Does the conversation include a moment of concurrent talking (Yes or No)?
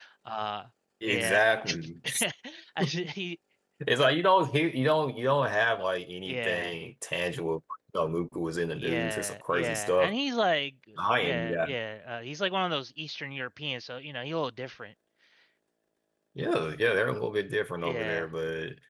Yes